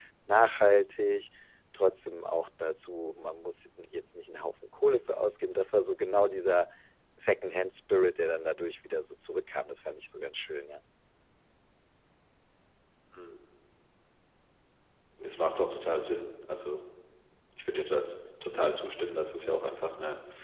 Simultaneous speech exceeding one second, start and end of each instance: none

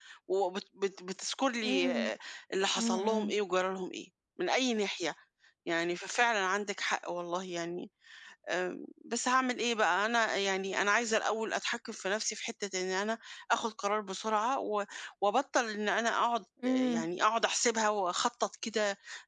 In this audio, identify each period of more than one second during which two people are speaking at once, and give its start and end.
none

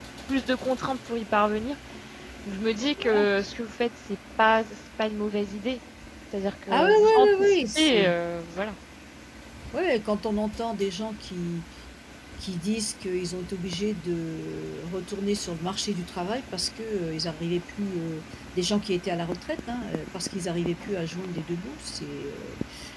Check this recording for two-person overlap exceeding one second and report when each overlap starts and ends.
6.7-8.1

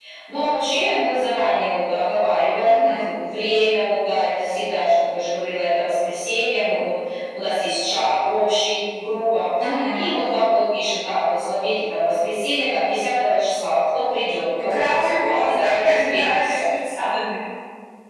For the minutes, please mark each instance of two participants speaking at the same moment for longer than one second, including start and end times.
14.7-16.5

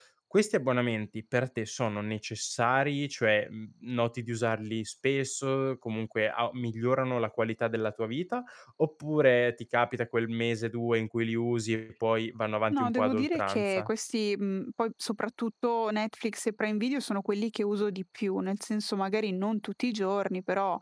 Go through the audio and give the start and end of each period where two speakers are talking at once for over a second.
12.7-13.9

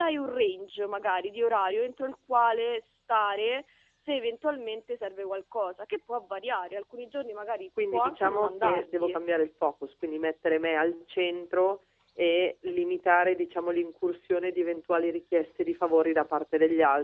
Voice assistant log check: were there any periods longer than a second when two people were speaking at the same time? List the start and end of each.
7.9-9.2

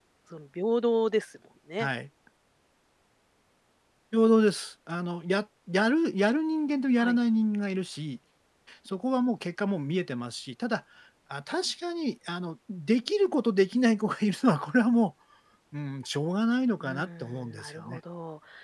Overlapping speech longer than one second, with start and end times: 16.8-18.0

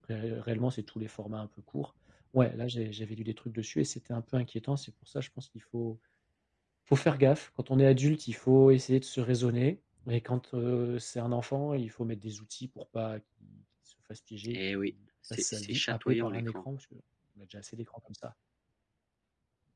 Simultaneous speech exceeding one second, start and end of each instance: 15.3-16.5

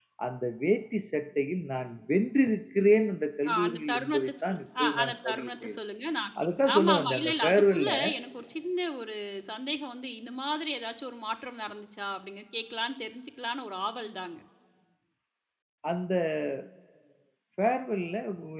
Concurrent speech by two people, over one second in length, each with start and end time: 3.5-5.8, 6.6-7.9

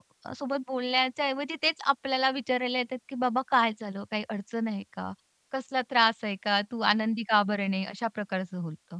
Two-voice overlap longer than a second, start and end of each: none

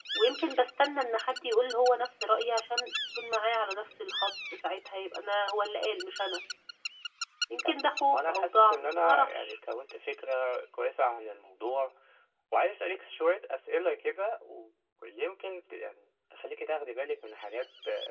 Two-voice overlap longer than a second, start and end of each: 7.6-9.6

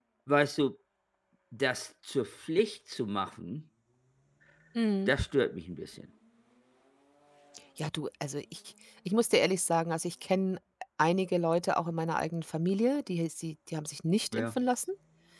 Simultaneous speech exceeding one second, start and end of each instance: none

